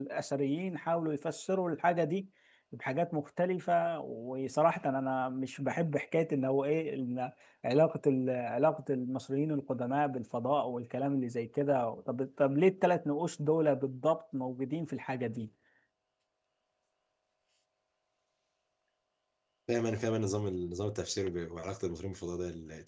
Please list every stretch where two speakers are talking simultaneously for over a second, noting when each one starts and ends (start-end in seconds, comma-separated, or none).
none